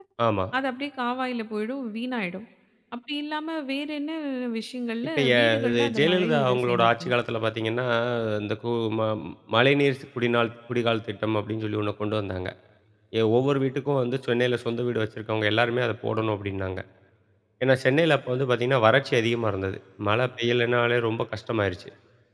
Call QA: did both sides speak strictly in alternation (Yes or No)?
No